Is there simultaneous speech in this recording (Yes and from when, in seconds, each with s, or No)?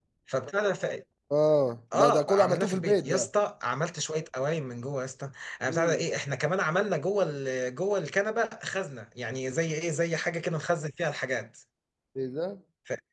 Yes, from 1.9 s